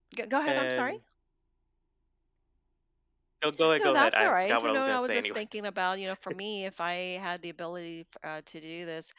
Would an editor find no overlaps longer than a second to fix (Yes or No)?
No